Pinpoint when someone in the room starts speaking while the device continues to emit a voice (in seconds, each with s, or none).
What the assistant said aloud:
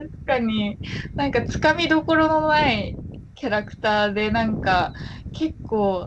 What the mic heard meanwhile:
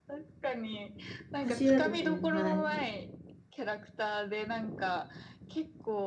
1.4 s